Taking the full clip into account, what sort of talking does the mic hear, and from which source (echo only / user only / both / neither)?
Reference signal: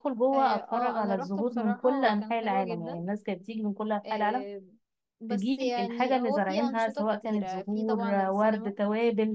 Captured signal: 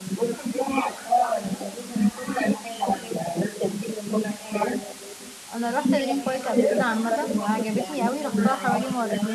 both